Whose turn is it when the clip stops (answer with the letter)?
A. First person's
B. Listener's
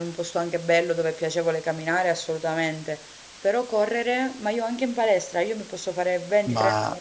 A